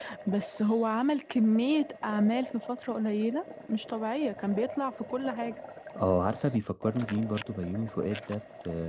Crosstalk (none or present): none